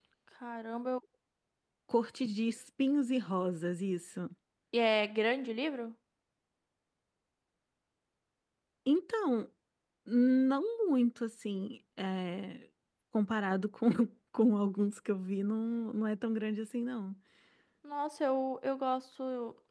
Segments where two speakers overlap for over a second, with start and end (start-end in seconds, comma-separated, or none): none